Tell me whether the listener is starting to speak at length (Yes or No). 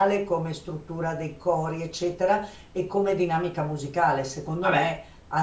No